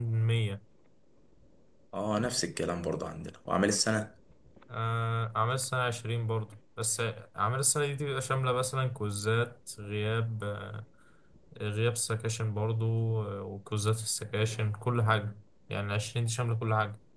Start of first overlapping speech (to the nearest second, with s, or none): none